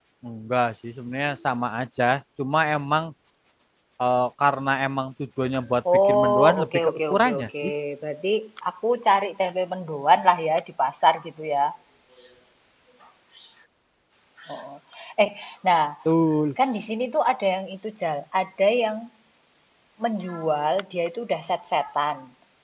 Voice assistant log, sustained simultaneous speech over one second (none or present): present